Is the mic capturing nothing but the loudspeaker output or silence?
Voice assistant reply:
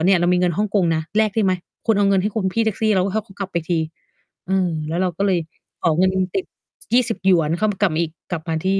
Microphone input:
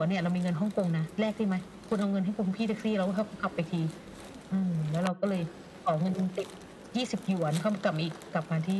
Yes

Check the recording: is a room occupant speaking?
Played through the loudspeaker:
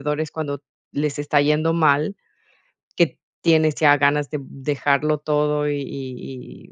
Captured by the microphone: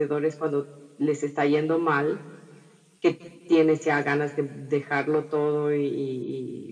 No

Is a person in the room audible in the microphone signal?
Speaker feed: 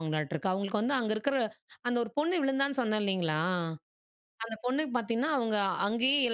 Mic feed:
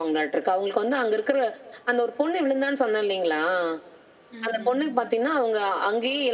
Yes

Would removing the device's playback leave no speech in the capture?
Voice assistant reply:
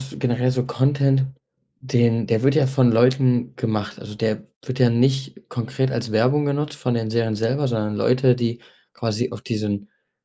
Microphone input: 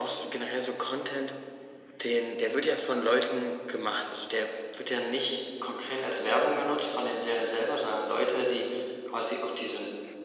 Yes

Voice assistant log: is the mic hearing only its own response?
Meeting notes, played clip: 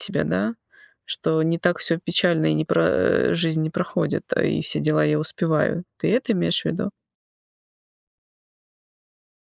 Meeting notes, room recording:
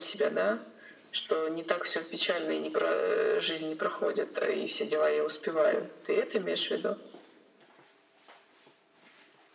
Yes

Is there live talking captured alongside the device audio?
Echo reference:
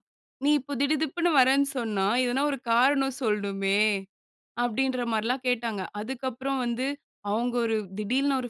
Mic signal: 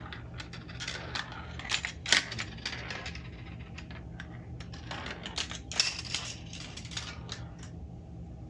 No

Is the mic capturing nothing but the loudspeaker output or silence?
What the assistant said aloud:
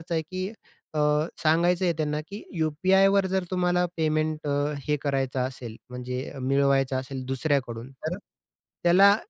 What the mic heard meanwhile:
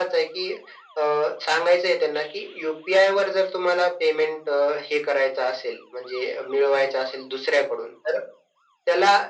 Yes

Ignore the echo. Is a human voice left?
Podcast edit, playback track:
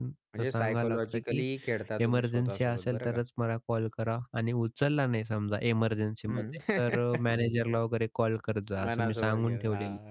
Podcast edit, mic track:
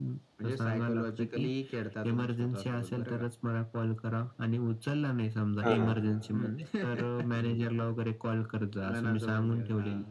Yes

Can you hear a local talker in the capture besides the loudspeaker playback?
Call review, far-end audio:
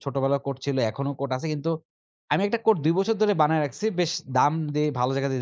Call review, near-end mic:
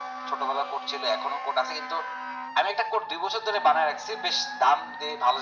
No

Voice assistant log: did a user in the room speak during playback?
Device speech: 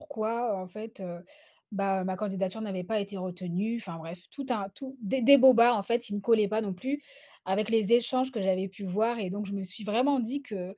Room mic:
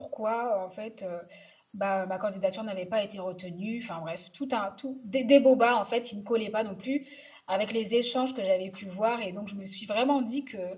No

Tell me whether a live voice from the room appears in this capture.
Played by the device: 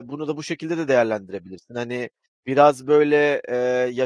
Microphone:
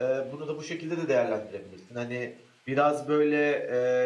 No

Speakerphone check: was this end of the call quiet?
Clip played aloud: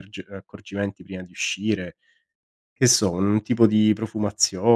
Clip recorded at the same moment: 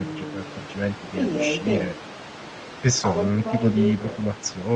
No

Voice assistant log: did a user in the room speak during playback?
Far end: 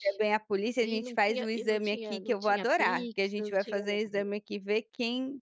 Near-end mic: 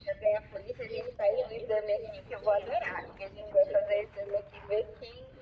No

